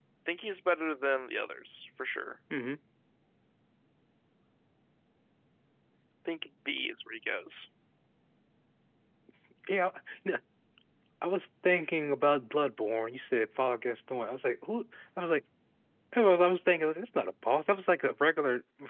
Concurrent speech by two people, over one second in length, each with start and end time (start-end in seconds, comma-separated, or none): none